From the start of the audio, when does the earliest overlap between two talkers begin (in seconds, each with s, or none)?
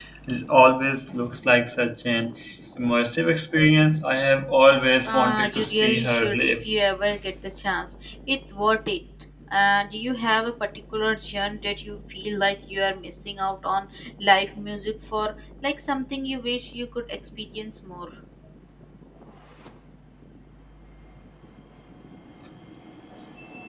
5.0 s